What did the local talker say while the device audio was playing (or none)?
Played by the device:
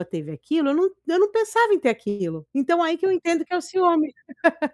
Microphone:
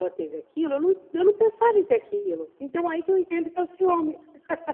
none